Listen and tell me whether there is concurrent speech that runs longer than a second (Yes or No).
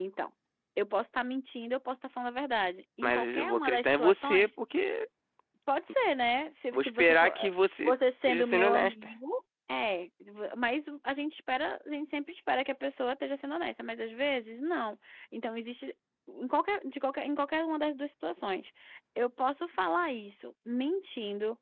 Yes